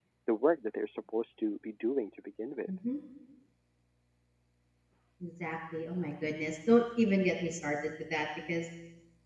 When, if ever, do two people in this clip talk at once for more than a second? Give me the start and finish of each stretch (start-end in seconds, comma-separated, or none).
none